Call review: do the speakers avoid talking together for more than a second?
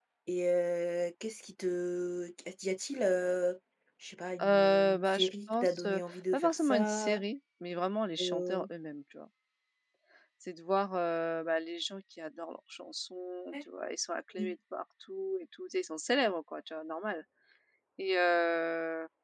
No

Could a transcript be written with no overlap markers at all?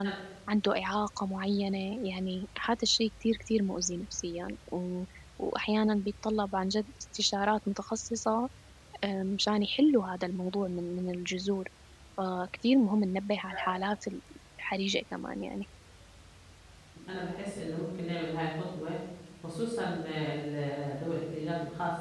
Yes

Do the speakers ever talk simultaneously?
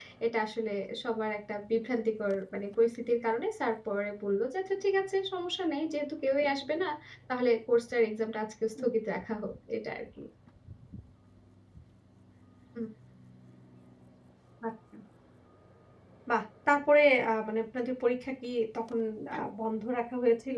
No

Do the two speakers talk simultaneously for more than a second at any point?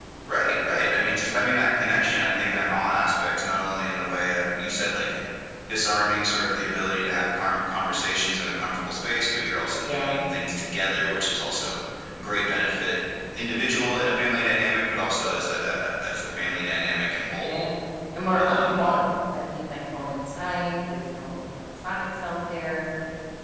No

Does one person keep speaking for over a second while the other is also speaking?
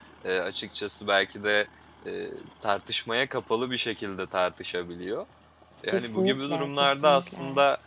Yes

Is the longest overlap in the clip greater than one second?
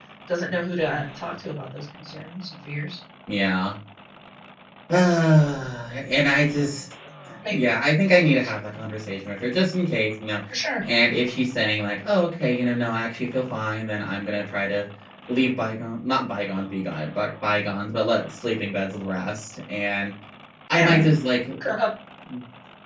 No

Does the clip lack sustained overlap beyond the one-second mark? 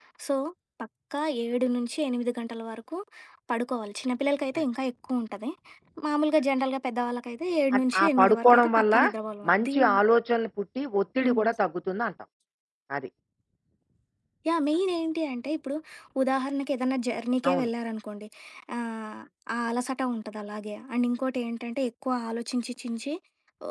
No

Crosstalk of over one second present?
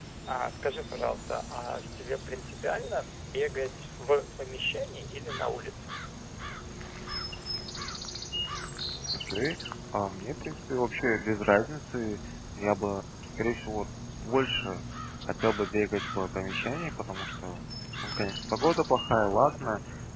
No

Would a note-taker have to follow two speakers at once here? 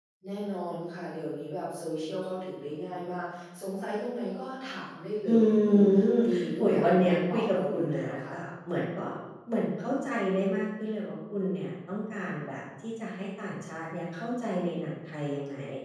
Yes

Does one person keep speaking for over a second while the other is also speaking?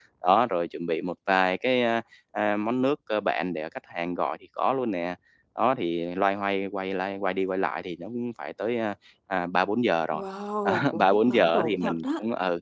Yes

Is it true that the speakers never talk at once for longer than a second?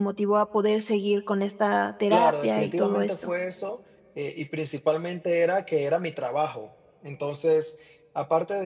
No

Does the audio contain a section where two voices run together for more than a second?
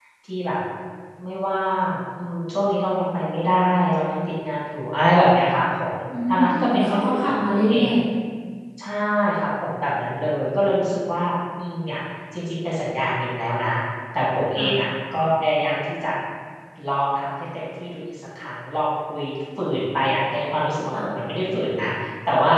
Yes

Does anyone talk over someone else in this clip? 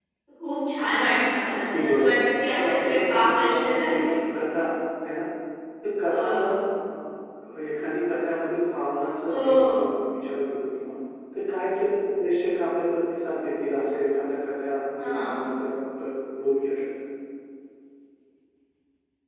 Yes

